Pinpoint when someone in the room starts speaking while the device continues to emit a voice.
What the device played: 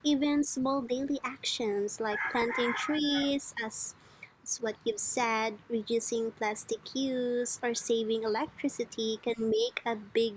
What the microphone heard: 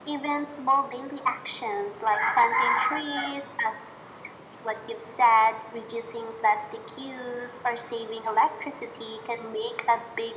none

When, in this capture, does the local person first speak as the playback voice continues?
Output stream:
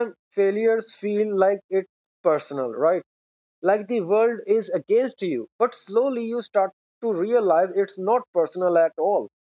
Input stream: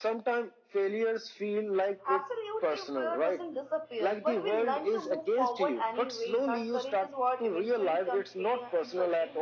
2 s

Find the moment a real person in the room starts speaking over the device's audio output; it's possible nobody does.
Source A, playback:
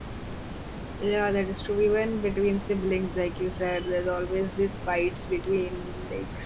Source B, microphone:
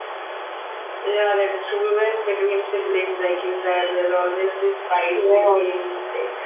5 s

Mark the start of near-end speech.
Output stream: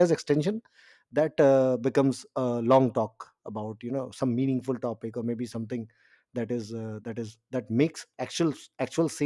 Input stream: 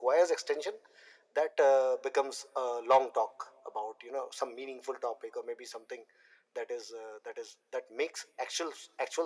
none

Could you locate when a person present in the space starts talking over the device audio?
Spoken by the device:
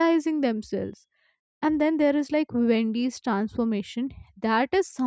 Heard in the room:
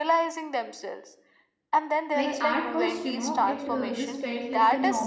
2 s

